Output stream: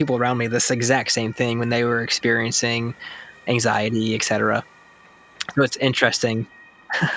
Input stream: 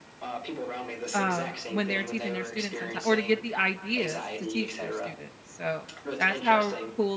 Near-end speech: present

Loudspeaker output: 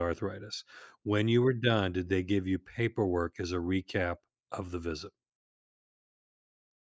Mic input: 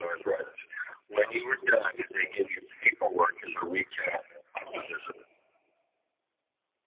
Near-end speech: present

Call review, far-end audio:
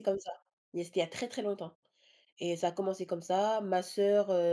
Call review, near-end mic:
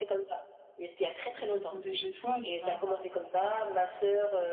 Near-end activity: present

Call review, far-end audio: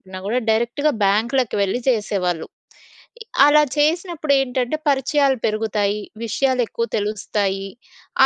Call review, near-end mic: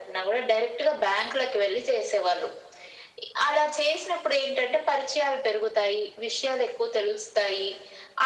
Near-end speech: none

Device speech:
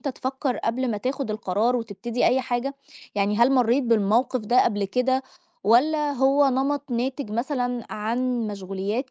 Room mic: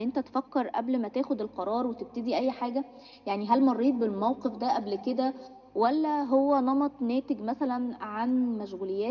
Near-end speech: none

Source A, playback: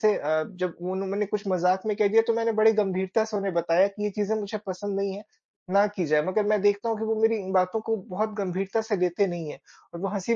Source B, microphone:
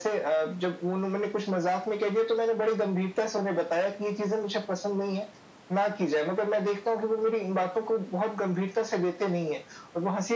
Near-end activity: none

